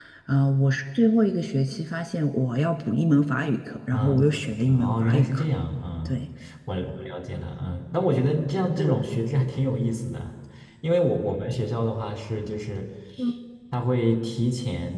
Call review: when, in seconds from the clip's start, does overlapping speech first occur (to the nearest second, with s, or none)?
4 s